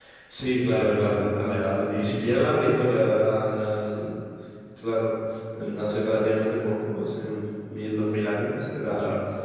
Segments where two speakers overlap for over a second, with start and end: 0.6-2.4

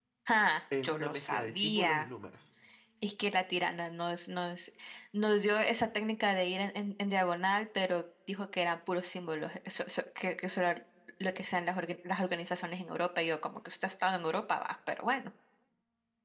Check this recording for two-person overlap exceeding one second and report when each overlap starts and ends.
0.8-2.1

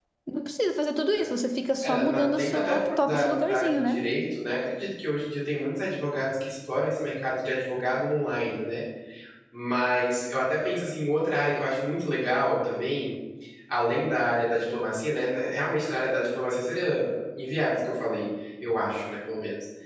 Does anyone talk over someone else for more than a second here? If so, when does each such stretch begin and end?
1.8-4.0

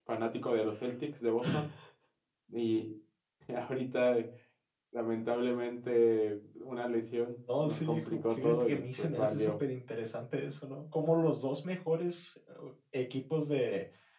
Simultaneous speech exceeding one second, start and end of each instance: 7.5-9.5

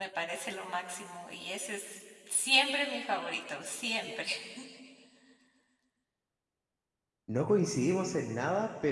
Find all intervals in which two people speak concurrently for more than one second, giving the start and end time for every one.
none

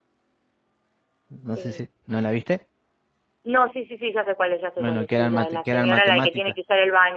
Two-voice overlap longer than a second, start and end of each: 4.8-6.4

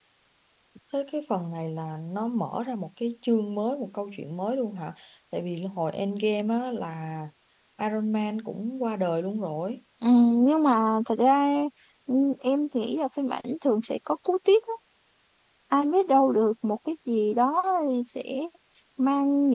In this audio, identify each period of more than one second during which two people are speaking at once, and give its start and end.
none

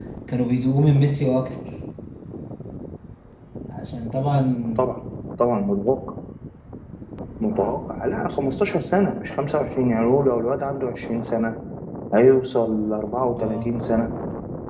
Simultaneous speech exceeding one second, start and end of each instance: none

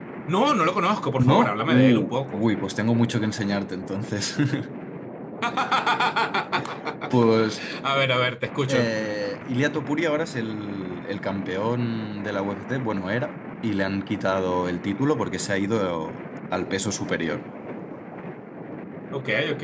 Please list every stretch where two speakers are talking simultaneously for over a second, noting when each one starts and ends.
1.2-2.4

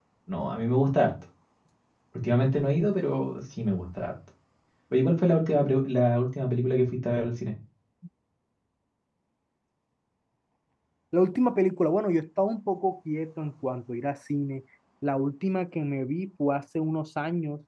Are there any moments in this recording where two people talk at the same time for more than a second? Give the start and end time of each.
none

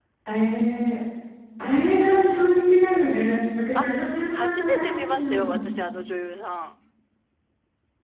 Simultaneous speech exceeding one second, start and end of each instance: 4.3-5.6

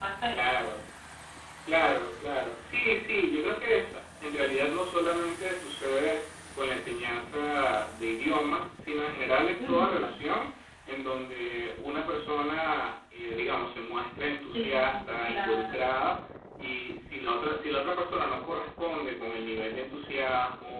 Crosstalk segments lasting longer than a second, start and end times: 14.5-15.9

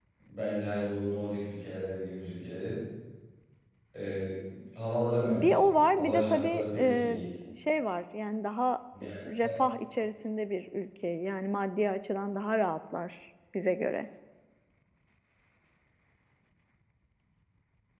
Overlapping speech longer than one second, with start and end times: 5.3-7.2

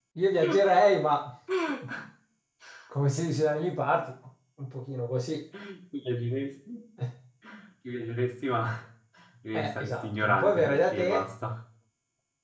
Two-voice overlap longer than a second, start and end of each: 9.6-11.2

